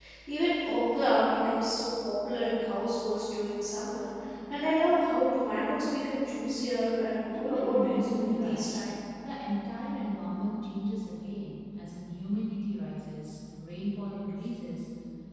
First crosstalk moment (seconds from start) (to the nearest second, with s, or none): 7 s